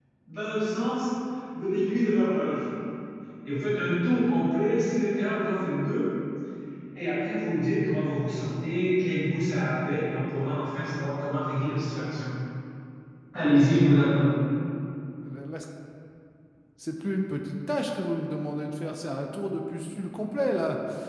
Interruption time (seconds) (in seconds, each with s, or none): none